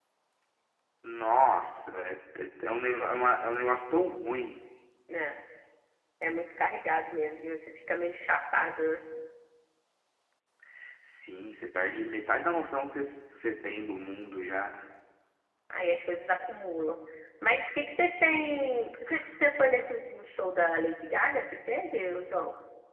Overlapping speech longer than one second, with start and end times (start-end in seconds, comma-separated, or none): none